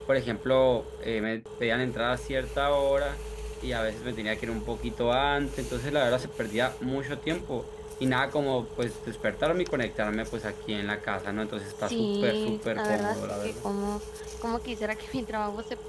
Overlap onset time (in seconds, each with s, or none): 11.8 s